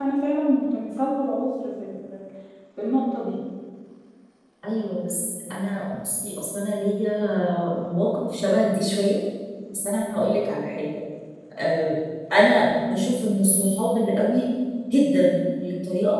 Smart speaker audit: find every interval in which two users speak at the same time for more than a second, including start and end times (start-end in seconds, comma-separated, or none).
none